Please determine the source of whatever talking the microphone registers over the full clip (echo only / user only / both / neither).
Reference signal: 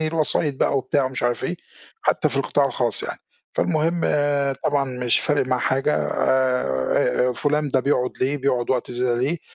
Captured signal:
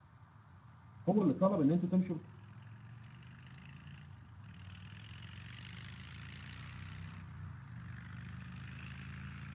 user only